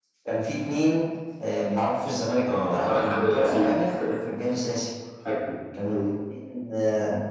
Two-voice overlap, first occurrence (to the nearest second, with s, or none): 2 s